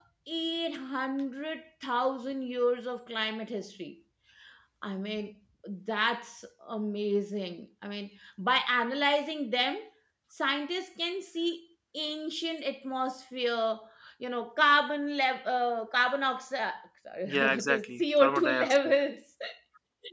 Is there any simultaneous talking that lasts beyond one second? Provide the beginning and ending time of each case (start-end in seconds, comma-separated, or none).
17.3-18.9